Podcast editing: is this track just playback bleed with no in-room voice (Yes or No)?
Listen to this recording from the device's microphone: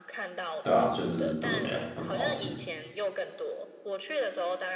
No